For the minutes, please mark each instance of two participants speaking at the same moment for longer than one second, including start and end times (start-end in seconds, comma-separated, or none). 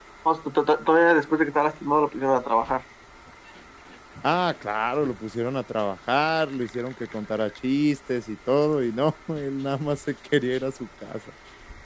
none